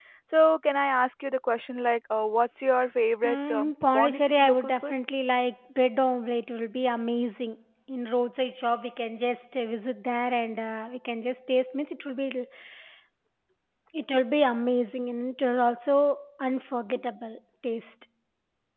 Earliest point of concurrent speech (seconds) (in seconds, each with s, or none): 3.2 s